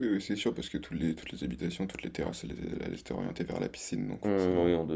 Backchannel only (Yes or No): No